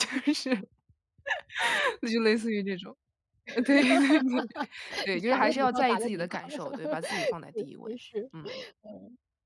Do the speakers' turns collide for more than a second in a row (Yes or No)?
Yes